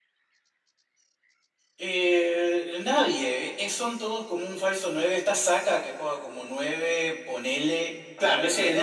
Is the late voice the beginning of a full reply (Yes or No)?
Yes